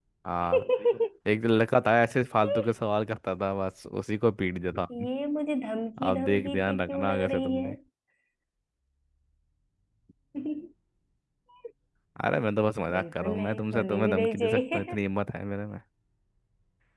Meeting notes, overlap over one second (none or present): present